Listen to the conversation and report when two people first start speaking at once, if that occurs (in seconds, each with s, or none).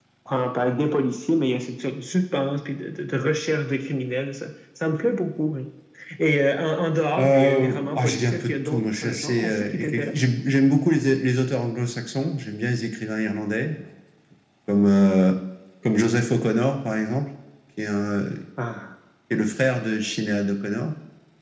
7.2 s